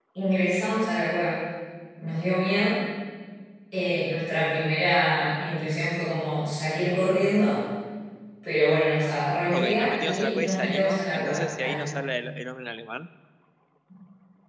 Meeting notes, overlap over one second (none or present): present